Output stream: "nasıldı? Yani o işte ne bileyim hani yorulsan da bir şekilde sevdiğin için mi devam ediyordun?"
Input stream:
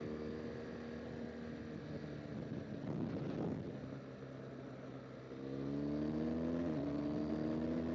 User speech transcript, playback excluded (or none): none